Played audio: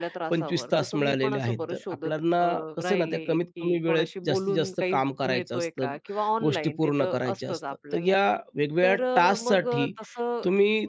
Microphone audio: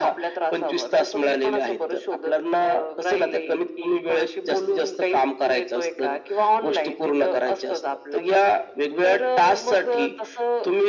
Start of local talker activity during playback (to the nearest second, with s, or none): none